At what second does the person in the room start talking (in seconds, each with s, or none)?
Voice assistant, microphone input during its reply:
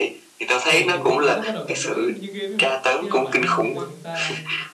0.6 s